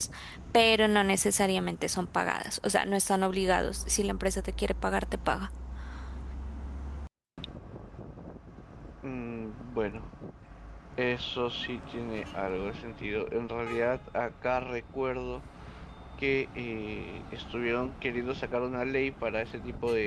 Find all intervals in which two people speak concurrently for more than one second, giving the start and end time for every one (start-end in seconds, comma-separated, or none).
none